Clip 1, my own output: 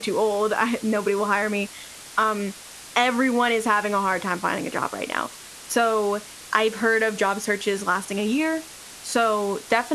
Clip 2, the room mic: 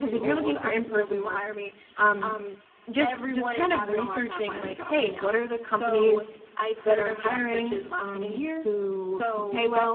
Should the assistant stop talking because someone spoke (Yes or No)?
Yes